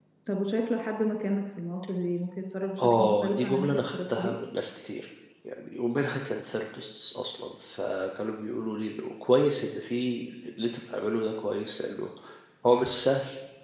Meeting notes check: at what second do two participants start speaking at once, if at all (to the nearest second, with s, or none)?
3 s